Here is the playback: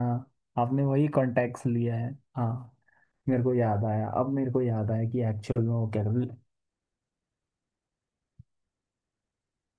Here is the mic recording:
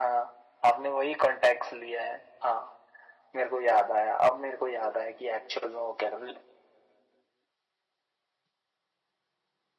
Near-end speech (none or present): none